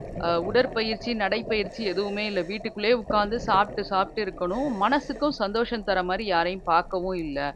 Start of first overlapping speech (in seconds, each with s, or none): none